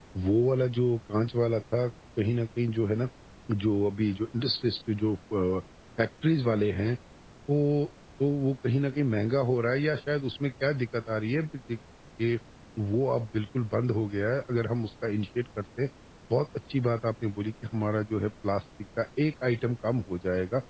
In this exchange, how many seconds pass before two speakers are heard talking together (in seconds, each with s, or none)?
none